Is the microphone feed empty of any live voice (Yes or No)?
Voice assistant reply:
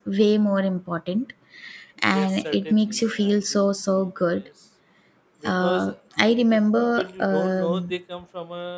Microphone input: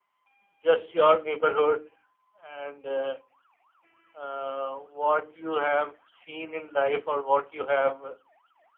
No